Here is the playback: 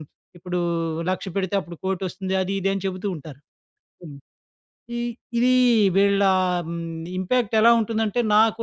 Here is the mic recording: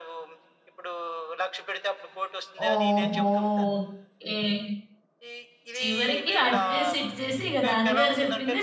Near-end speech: present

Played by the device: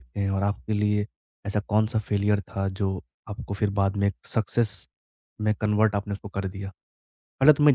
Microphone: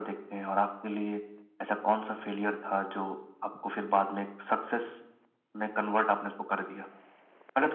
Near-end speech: none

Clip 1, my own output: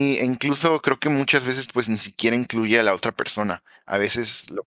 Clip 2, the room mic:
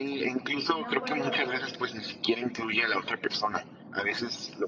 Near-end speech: present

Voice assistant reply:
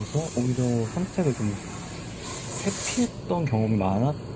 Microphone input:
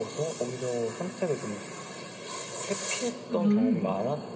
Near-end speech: present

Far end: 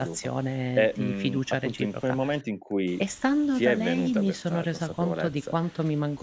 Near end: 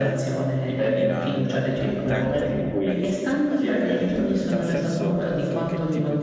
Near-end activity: present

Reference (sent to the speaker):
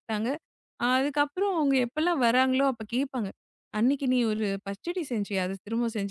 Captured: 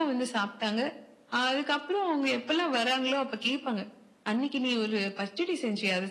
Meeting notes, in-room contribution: none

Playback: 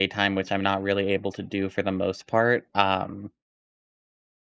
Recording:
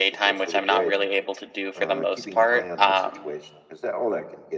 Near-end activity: present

